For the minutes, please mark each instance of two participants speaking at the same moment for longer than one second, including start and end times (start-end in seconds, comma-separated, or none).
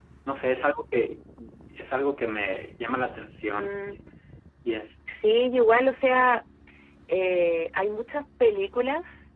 none